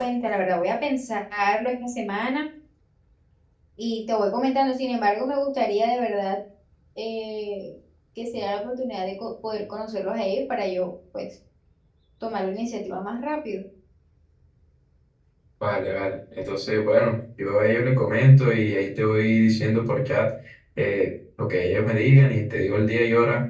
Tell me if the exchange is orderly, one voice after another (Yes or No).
Yes